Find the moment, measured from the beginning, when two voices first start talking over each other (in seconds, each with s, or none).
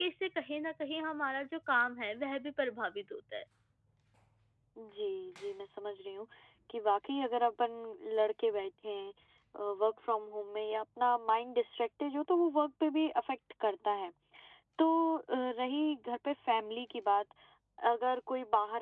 none